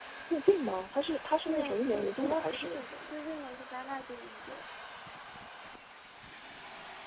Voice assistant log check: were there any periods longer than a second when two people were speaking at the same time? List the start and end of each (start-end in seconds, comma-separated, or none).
1.5-2.8